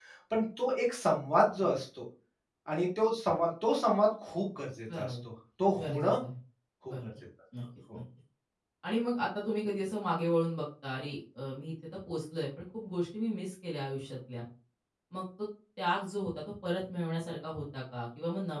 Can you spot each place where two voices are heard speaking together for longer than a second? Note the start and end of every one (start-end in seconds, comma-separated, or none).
none